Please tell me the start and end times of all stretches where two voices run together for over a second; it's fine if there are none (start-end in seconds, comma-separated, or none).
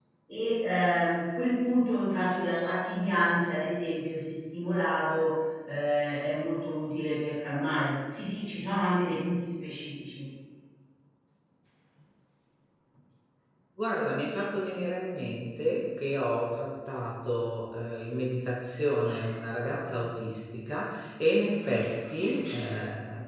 none